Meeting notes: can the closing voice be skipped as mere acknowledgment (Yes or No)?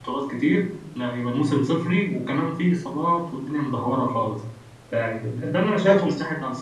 No